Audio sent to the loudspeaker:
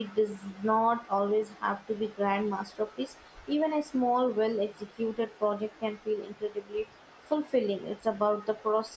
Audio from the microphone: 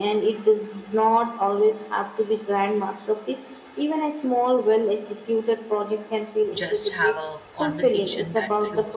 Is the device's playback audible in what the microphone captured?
Yes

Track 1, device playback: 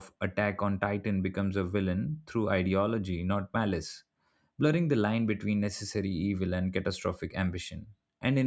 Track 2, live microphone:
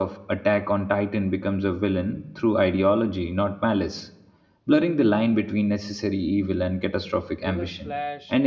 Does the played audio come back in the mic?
Yes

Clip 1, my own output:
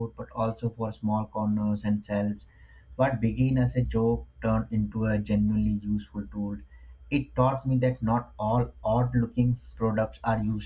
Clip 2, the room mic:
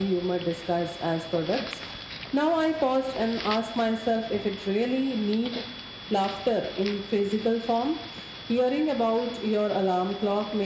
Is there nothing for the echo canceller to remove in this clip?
Yes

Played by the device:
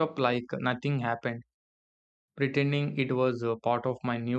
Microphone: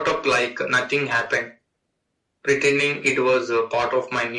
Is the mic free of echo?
No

